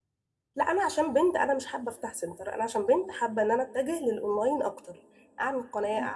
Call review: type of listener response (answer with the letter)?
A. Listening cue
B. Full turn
A